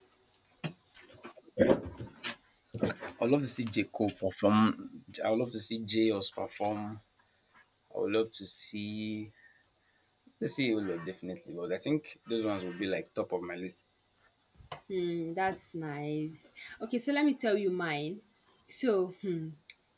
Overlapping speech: No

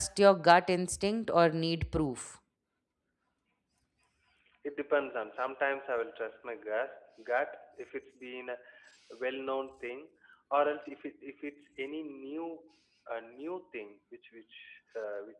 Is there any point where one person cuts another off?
No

